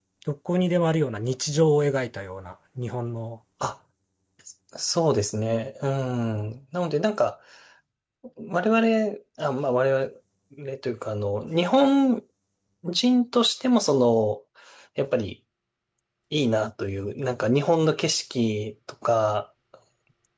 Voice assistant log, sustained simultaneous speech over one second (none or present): none